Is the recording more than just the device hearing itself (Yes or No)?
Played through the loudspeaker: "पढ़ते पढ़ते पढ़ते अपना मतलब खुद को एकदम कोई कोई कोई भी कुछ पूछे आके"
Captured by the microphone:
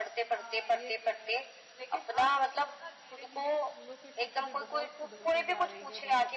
Yes